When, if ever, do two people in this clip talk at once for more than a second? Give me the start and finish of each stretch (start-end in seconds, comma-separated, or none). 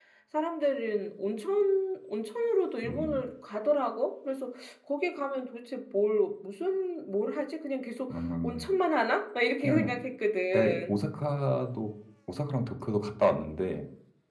none